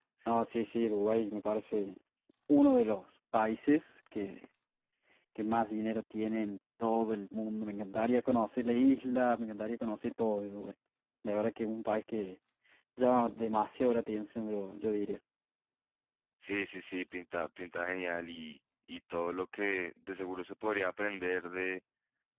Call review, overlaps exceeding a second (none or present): none